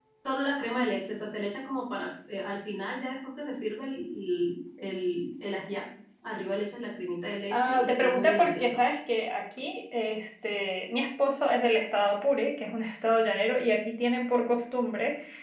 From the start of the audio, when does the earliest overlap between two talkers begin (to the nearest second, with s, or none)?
8 s